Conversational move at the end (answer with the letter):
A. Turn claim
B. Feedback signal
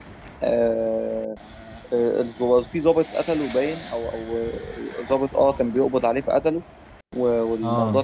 B